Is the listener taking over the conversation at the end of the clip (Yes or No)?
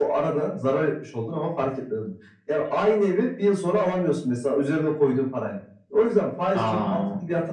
No